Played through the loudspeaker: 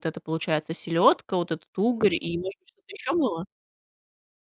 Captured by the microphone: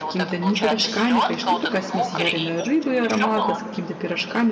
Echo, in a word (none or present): present